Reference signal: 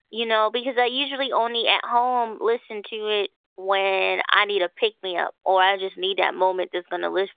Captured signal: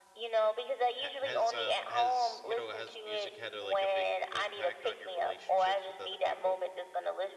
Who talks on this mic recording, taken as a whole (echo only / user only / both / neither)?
both